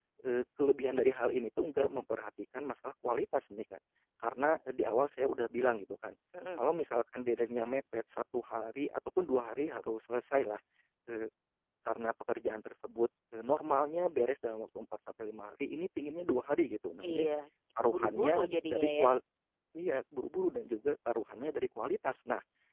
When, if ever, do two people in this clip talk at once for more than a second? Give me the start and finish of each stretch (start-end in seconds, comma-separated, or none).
17.8-19.1